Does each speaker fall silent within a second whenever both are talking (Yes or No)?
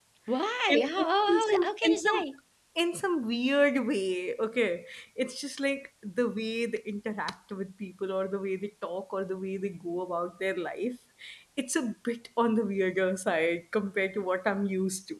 No